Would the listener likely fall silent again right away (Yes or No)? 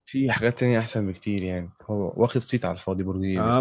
No